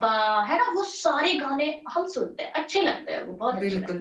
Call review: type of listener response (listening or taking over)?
taking over